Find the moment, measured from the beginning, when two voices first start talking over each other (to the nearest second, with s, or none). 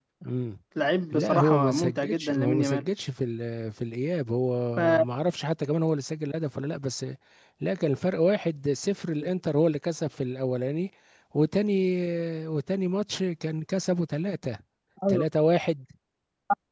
1 s